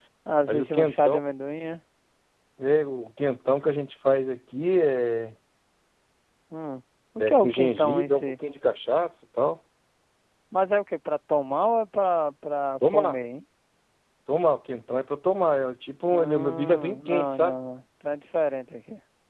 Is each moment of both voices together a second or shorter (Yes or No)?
No